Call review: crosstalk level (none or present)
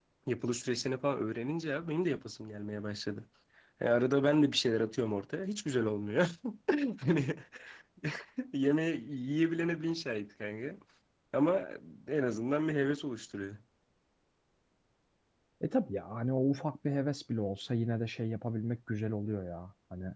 none